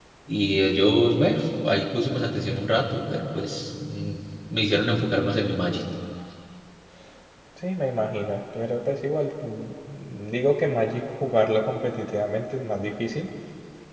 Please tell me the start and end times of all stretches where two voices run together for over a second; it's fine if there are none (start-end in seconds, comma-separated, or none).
none